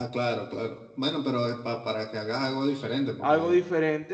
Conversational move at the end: taking over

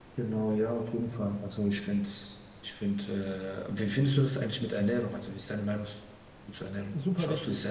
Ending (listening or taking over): taking over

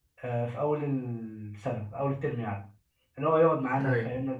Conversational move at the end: listening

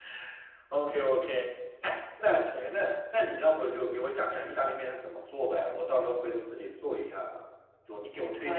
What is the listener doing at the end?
listening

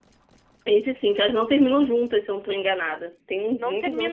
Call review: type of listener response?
taking over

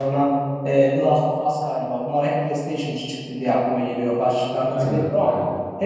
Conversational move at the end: listening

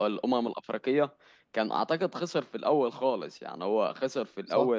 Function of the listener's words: listening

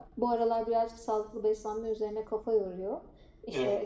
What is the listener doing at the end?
listening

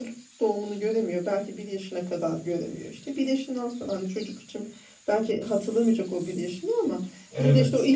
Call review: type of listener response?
listening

